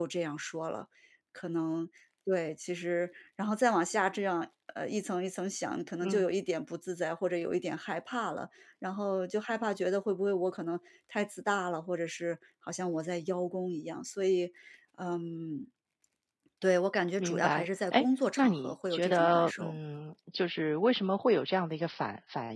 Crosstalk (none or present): present